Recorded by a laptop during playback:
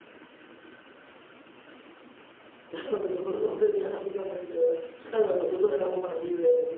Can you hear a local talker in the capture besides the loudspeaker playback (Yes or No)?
Yes